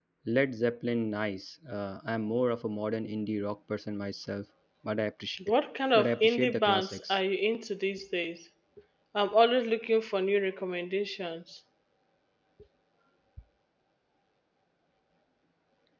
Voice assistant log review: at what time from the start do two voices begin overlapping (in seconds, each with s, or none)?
5.9 s